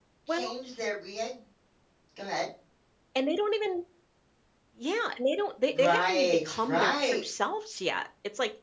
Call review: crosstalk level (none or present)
present